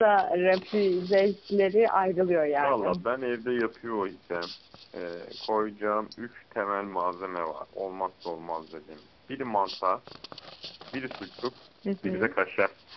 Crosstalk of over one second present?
No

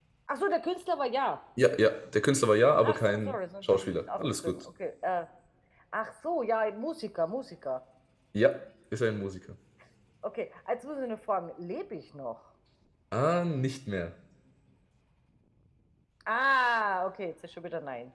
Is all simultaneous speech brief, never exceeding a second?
No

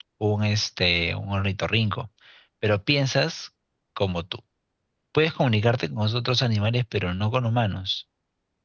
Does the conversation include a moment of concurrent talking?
No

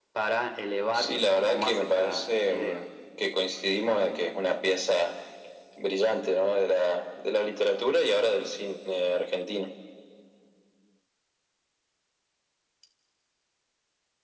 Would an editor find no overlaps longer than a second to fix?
No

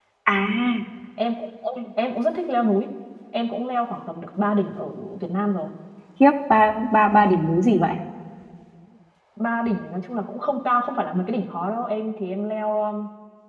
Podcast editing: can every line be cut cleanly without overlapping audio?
Yes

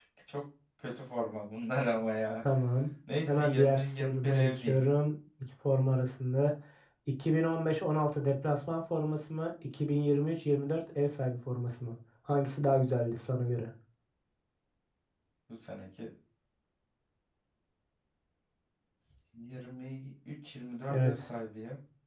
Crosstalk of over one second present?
Yes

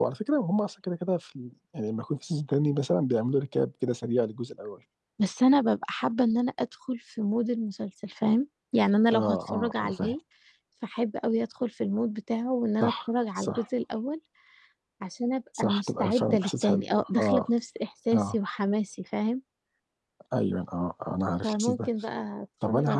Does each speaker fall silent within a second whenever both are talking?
No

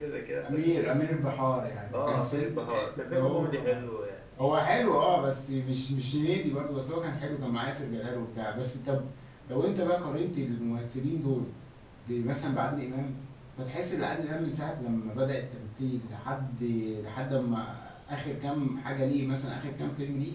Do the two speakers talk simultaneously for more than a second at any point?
Yes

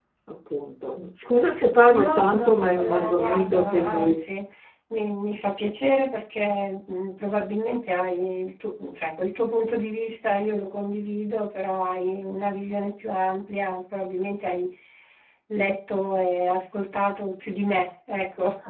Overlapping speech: Yes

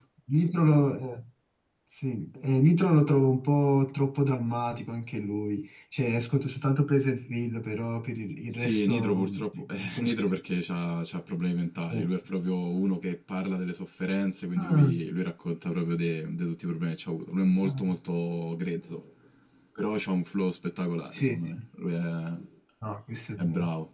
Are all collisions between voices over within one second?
No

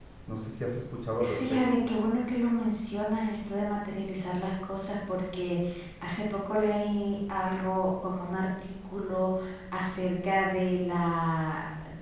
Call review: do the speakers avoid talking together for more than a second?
Yes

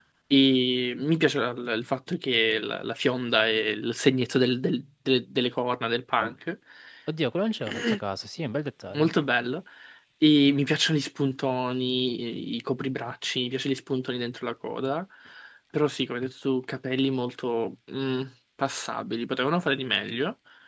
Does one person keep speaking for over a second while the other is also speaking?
No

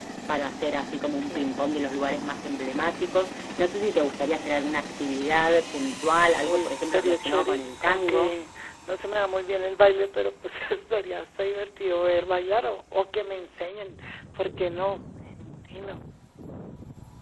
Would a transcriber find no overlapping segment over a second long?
No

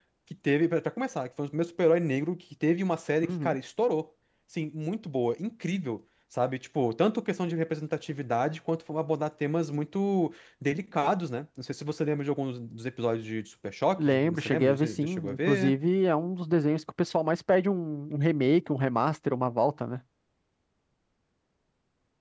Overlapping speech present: Yes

